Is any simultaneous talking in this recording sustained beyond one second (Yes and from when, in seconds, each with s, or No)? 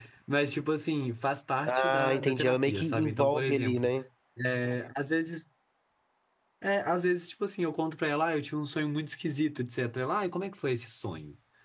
Yes, from 1.7 s